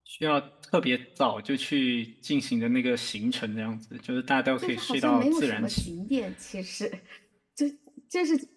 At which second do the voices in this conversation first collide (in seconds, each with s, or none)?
4.6 s